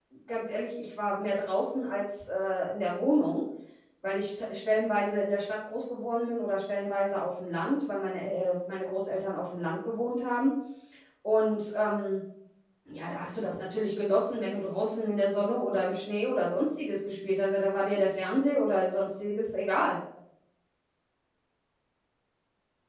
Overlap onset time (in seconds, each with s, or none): none